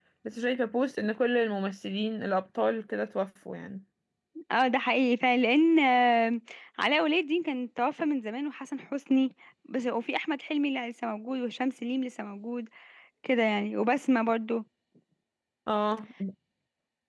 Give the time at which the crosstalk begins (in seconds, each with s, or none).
none